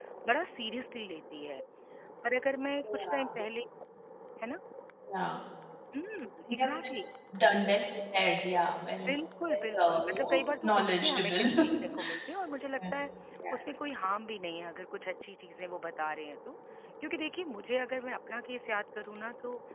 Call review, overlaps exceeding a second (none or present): present